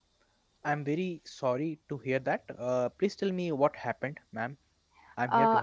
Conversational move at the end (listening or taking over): taking over